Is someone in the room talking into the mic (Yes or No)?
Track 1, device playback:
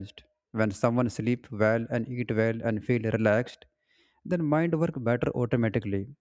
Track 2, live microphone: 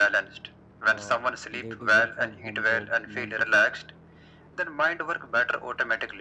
Yes